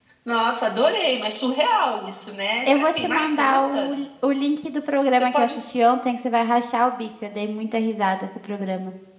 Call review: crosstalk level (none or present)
present